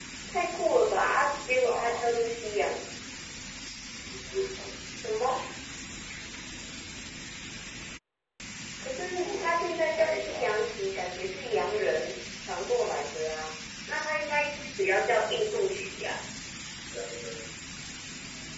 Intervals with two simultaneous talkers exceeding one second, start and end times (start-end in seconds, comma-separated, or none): 0.7-2.0, 8.9-10.6